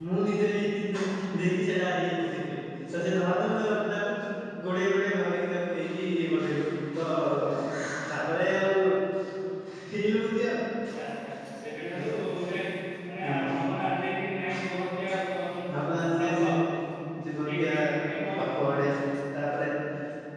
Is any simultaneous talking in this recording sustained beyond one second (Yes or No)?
No